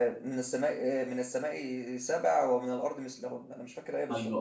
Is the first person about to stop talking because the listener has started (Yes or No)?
Yes